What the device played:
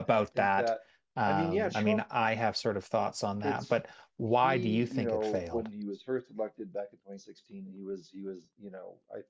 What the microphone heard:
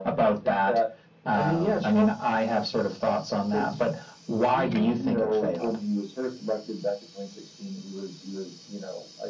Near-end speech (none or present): none